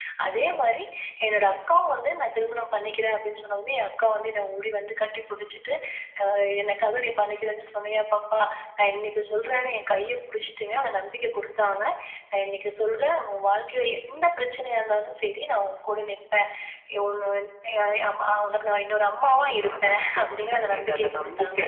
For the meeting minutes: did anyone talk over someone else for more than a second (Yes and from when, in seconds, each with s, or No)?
Yes, from 19.2 s